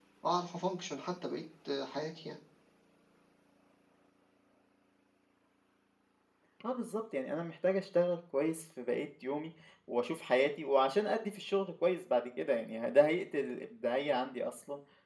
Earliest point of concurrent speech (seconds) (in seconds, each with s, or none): none